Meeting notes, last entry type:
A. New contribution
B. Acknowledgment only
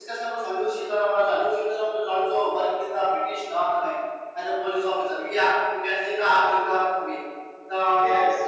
B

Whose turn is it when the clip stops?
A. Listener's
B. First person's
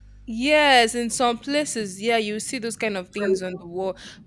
B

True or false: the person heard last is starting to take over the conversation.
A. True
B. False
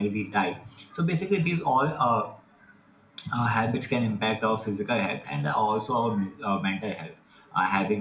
B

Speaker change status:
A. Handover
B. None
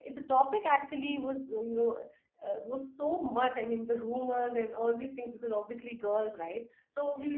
B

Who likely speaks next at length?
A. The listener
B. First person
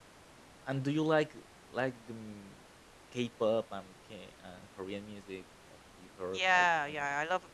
A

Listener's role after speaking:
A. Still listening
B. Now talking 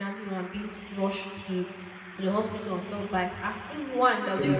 A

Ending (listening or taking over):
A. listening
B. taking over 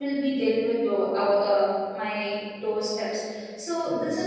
A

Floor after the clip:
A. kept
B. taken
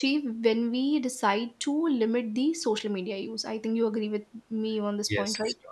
B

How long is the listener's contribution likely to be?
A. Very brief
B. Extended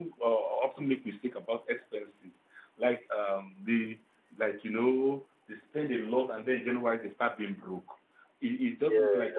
A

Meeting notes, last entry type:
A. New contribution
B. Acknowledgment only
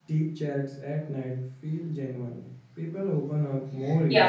A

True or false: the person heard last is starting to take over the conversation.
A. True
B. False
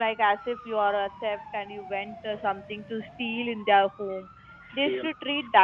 B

